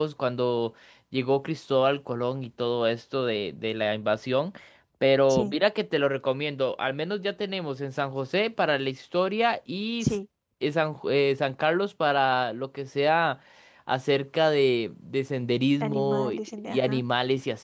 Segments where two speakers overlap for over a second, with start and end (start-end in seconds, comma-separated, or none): 15.8-17.0